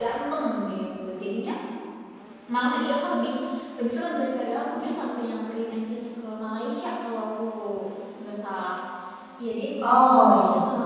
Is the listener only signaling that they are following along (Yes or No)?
Yes